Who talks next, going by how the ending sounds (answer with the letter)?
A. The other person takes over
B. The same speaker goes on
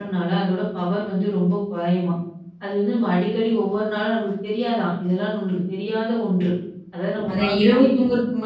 A